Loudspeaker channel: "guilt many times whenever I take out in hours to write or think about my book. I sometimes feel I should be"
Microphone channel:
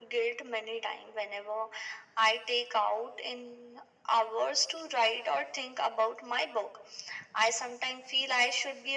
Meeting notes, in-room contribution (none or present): none